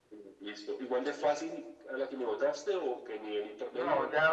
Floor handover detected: Yes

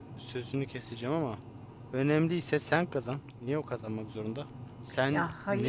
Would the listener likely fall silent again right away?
Yes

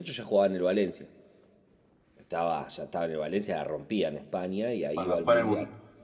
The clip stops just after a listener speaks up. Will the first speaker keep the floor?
No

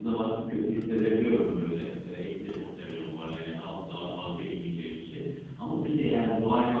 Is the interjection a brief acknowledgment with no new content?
Yes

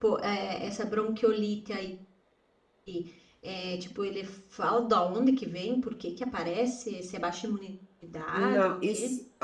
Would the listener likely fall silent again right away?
No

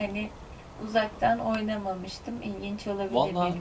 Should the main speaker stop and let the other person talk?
Yes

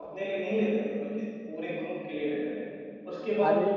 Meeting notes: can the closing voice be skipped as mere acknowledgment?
Yes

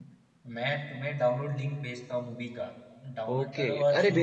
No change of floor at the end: No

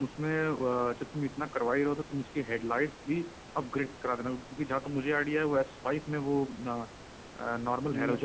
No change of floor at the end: No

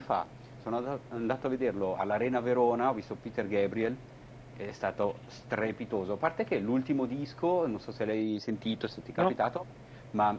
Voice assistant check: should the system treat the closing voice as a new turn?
No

